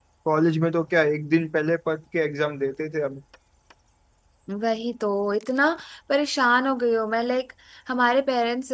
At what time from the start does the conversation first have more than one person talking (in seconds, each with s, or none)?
none